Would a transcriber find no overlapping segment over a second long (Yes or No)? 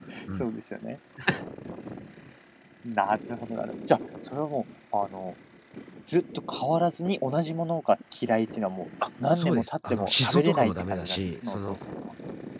No